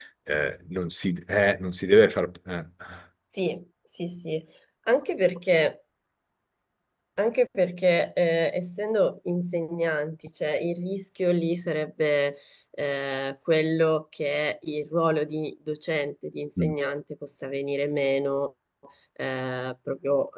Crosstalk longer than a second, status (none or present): none